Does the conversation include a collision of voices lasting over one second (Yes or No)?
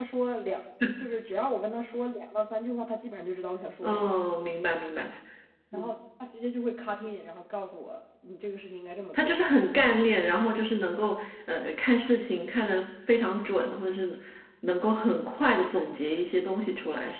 No